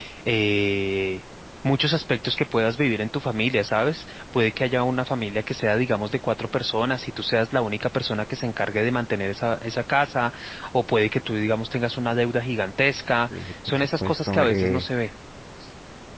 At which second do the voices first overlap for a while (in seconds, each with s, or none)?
13.3 s